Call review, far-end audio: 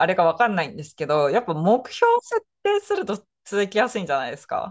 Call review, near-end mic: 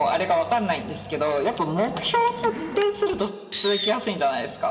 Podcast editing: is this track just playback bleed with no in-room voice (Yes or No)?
Yes